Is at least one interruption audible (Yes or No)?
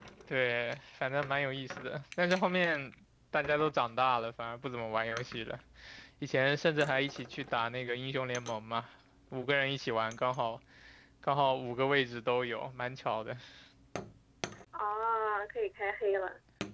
No